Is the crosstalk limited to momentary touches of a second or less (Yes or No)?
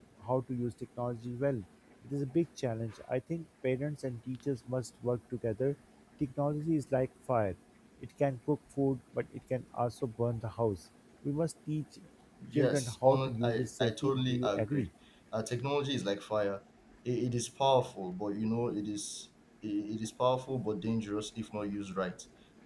No